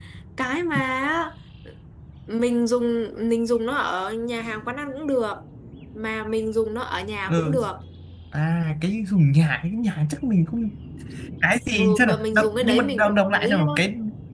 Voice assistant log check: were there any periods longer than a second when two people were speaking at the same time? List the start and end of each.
11.8-13.7

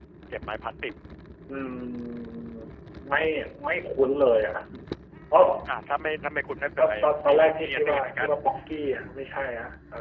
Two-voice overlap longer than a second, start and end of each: 6.8-8.3

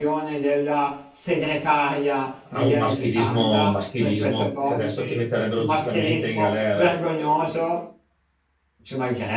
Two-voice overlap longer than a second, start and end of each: 2.5-5.1, 5.6-6.9

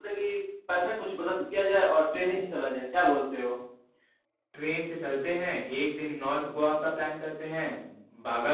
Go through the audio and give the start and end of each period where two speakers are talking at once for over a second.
none

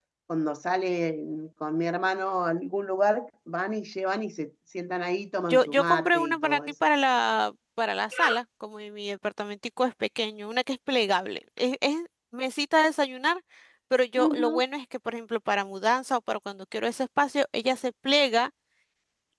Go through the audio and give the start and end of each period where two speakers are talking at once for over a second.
5.5-6.7

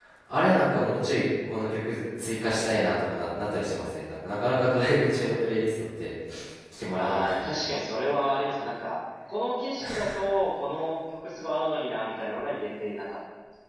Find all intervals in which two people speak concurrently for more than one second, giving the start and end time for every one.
none

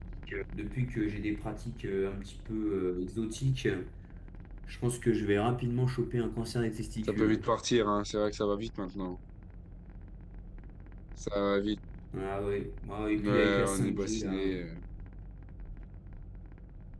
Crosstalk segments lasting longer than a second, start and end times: 13.2-14.6

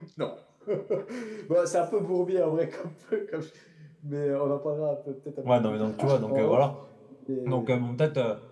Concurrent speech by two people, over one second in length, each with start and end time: 5.4-6.7

